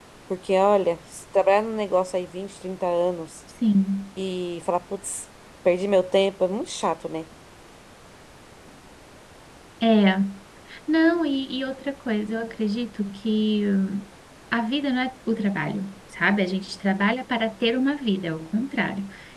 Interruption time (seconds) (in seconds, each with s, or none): none